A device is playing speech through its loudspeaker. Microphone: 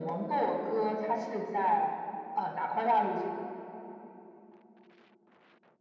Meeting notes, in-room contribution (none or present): none